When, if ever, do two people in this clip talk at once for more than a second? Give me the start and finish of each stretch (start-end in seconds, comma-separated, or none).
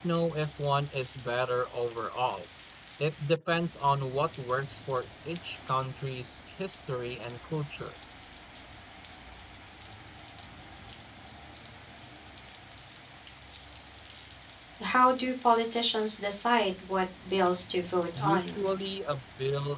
none